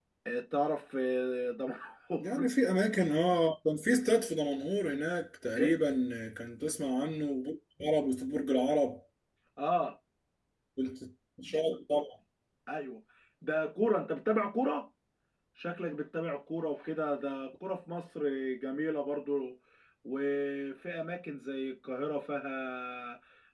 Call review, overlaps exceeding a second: none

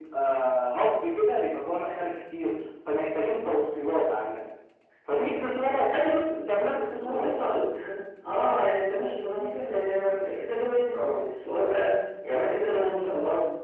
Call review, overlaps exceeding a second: none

